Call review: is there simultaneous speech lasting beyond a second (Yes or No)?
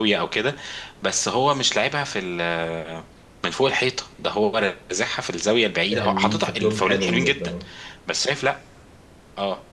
Yes